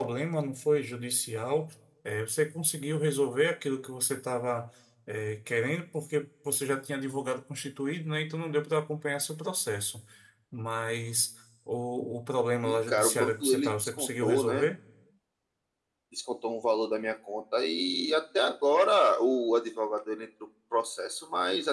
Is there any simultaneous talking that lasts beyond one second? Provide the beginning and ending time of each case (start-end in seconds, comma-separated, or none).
12.6-14.7